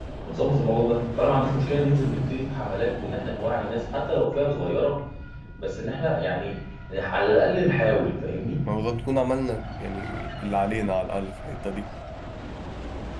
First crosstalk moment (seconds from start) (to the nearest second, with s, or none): none